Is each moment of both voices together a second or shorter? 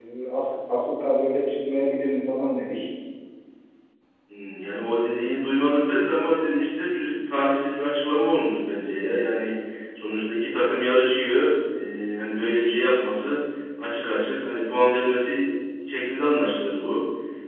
Yes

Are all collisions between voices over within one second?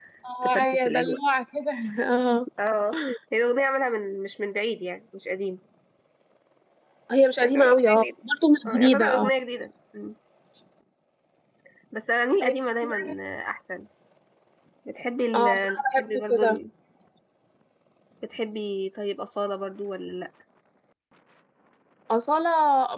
No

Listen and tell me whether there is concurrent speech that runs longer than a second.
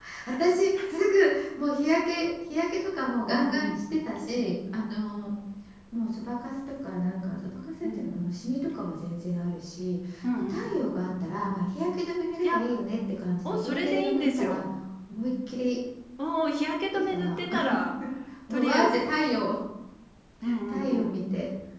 Yes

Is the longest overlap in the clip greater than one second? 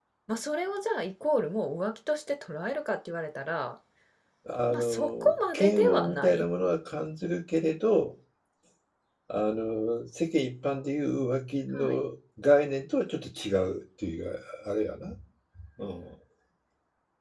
Yes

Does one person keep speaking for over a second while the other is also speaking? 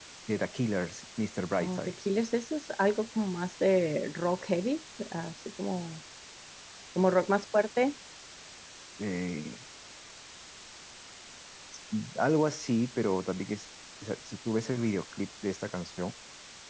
No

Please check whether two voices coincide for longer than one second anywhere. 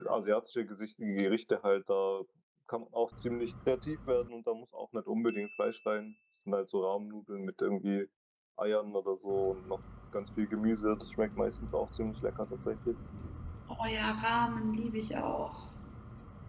No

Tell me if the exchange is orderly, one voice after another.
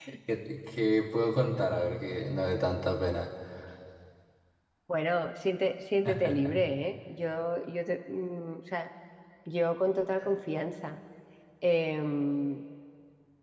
Yes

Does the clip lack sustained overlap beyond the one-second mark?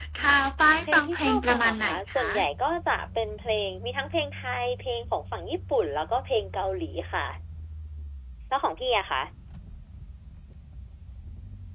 No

